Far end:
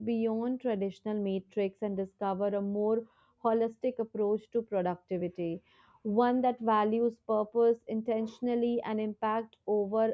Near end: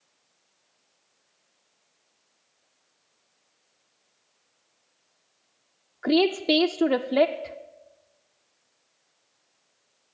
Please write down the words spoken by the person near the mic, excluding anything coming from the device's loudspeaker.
creates space to reflect

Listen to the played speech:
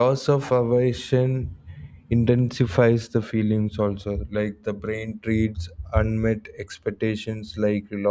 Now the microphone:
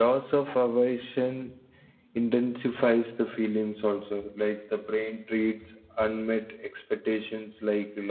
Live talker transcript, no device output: none

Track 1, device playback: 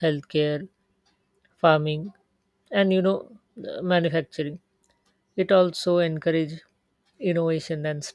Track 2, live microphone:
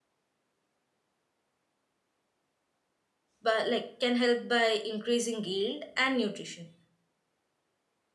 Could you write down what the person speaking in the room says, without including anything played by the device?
but like can help by increasing yield and nutrition.

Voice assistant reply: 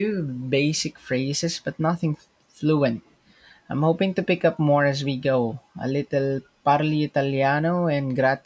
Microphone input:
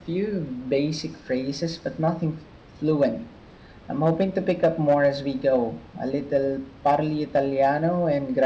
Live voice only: none

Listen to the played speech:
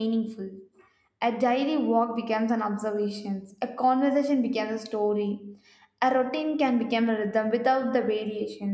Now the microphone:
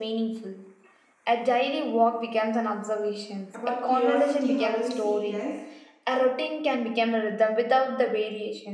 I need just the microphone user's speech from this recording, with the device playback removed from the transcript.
about curiosity how do you see it as

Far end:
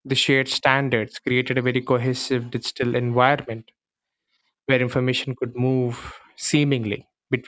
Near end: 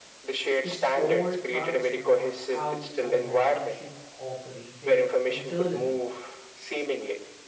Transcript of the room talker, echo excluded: This all transformed how organization operated internally.

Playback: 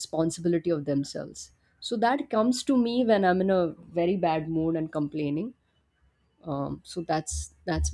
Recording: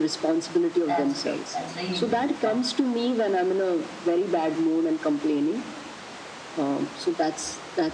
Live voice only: That's great. That's really great. Yeah.

